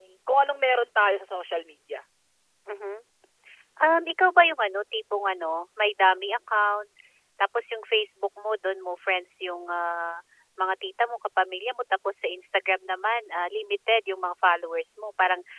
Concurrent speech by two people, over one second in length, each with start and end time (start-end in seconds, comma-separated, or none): none